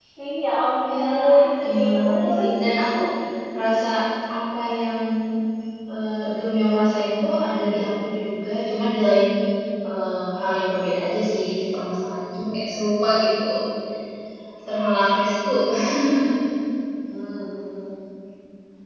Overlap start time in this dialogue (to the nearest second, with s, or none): 1 s